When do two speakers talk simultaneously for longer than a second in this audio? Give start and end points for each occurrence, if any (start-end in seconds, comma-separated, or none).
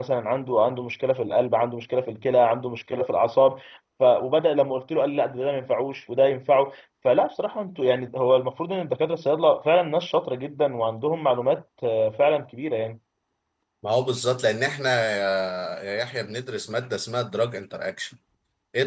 none